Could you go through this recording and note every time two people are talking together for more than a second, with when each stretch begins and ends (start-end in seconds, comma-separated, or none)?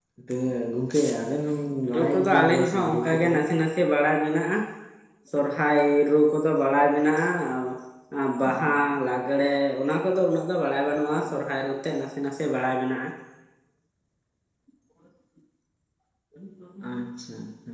1.9-3.4